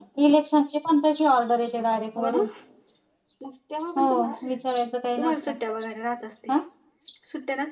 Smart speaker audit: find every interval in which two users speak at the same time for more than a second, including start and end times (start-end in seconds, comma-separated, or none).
none